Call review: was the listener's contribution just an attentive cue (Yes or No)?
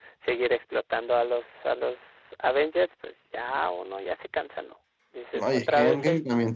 No